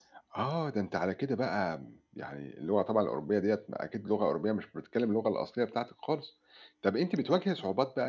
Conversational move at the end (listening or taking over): listening